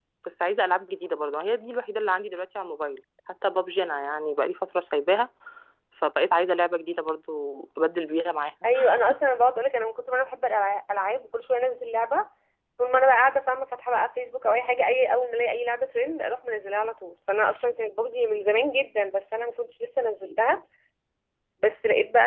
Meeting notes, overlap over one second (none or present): none